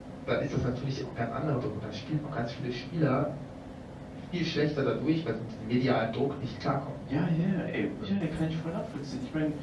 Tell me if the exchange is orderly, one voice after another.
Yes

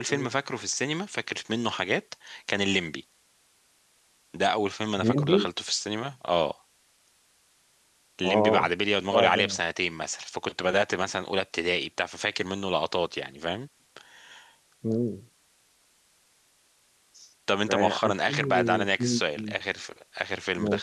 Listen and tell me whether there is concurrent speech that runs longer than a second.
Yes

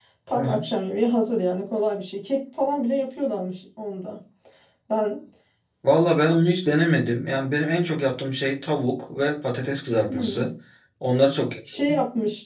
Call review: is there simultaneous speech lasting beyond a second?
No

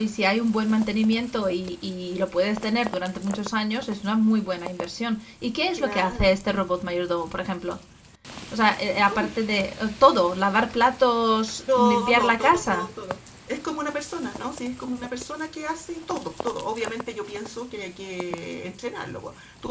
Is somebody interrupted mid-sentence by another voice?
Yes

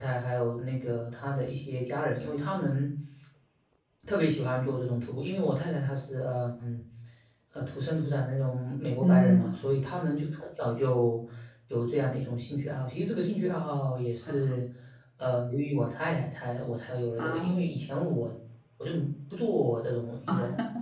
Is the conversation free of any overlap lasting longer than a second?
Yes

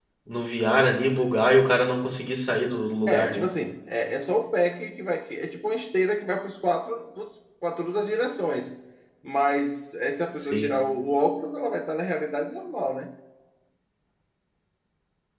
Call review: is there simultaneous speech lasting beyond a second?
No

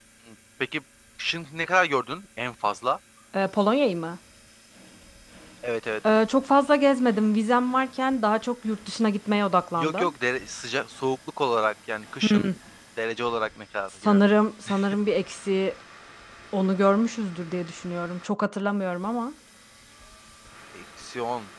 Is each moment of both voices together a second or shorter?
Yes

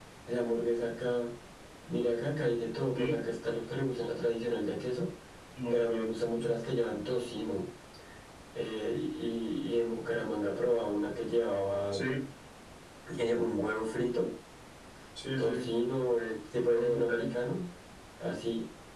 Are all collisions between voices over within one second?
Yes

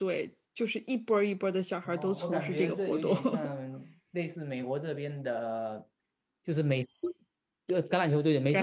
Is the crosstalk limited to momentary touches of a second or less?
No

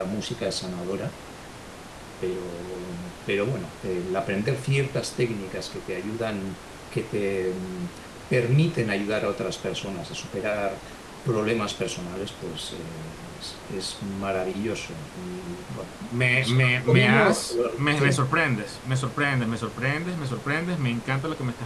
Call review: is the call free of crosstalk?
No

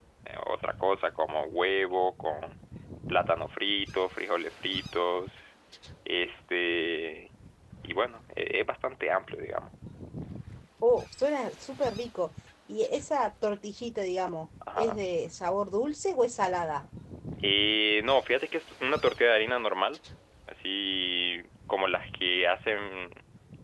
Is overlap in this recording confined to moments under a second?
Yes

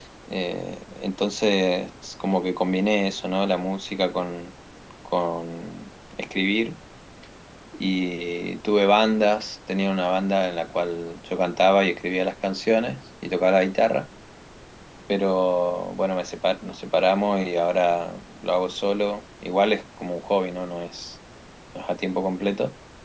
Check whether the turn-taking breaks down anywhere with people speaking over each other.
No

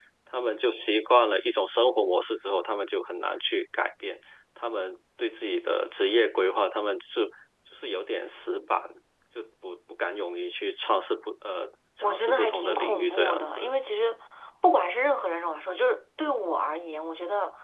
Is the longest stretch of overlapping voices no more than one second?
No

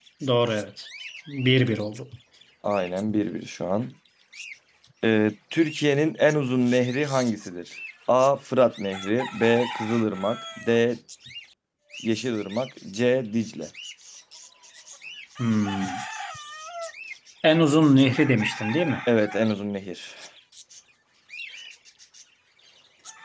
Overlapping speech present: No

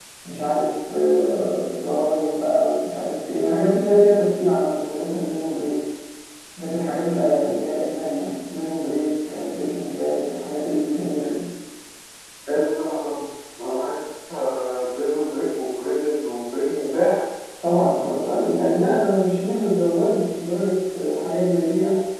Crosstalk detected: No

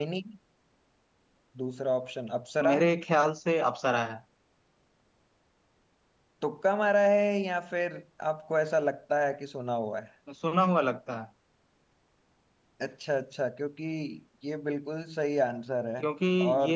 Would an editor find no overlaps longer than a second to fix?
Yes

